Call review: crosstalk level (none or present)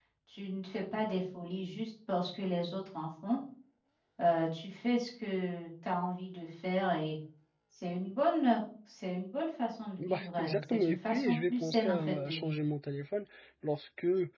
present